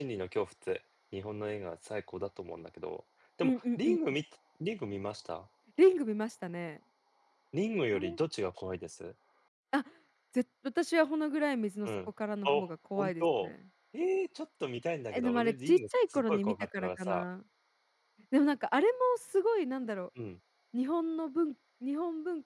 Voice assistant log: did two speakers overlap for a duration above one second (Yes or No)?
Yes